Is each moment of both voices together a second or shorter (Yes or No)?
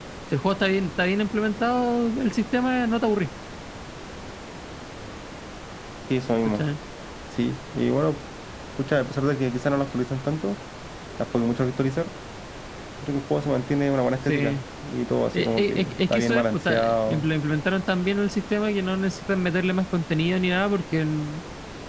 No